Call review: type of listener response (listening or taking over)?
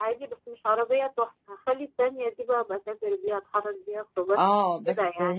taking over